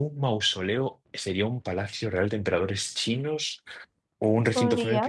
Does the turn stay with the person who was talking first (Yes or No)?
Yes